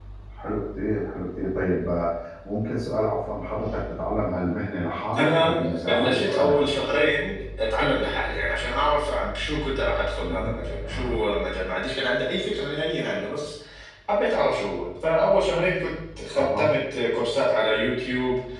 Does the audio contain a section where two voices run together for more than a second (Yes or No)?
Yes